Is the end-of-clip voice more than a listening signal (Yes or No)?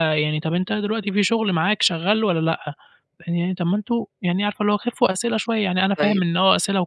No